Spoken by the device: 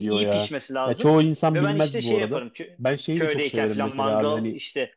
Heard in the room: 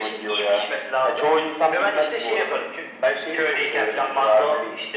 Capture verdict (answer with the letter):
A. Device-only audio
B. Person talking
A